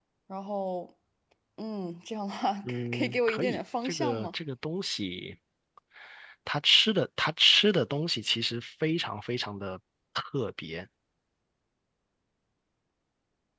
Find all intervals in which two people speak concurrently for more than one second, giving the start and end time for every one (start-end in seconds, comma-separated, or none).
2.9-4.3